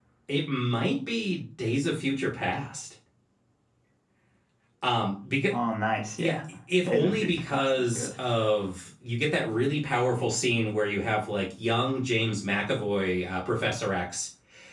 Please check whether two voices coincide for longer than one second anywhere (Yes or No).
Yes